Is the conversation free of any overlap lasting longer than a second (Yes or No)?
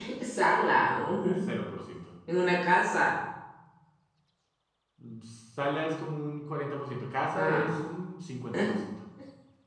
Yes